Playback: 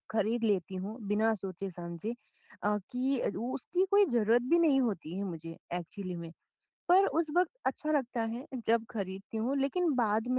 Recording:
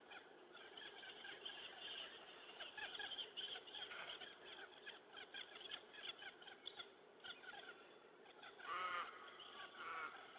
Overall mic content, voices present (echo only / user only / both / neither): neither